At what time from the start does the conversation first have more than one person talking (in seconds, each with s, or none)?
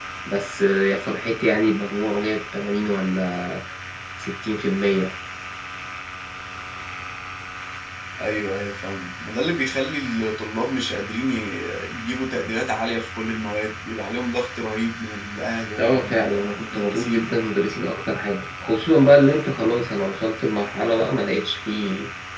15.8 s